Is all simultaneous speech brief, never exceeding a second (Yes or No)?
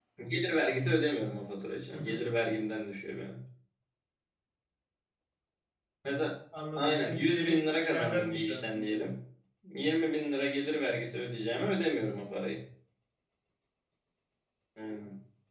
No